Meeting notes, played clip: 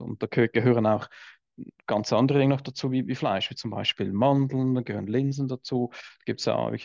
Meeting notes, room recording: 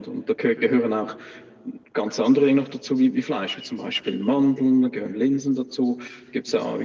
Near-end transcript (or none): none